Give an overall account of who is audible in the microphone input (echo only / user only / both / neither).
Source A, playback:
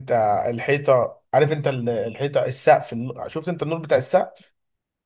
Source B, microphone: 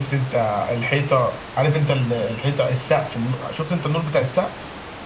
echo only